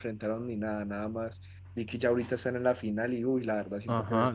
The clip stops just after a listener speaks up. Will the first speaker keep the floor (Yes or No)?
No